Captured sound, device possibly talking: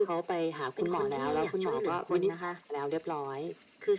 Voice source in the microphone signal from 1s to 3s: echo only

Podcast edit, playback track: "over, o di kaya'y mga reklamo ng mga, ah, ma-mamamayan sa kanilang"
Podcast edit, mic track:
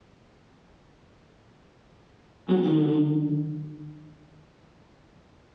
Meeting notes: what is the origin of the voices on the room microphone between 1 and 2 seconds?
neither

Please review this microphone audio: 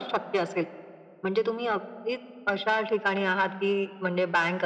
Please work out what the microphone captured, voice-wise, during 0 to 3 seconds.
echo only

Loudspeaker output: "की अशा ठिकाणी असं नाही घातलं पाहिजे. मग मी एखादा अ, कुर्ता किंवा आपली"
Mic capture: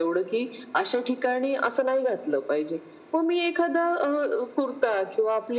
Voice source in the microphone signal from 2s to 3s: echo only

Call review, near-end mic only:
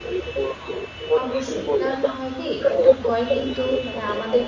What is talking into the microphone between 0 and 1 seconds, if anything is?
echo only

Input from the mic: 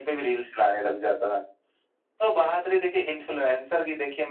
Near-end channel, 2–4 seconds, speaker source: echo only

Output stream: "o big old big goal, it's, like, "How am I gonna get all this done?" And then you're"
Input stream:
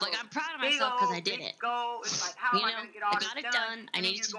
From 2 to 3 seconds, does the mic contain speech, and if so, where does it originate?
both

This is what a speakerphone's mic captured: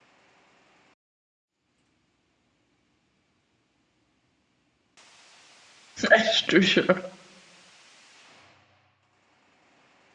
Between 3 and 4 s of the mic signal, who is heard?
neither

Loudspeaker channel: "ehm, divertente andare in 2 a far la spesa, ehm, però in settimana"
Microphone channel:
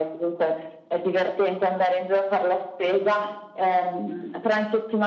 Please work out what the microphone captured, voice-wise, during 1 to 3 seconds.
echo only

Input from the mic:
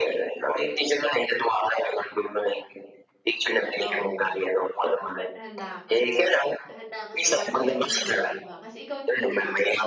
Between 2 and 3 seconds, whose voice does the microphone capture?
echo only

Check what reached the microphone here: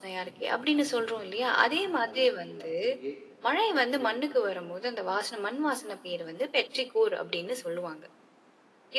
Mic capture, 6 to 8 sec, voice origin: echo only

